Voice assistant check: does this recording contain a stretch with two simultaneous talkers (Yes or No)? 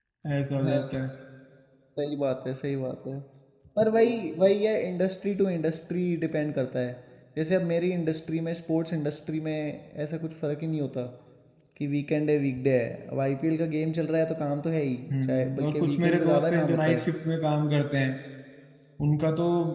Yes